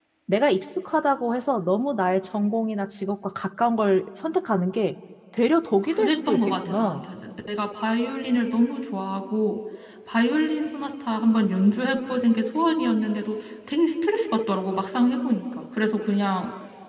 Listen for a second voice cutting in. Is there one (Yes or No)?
Yes